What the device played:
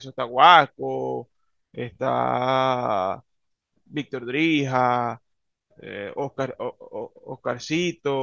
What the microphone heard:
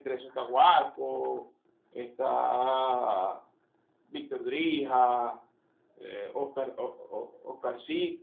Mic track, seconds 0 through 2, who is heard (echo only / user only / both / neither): echo only